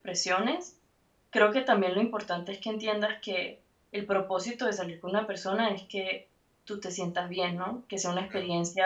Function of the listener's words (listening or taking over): listening